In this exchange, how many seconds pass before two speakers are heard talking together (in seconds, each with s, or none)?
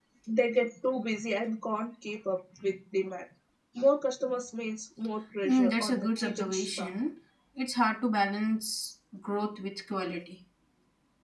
5.4 s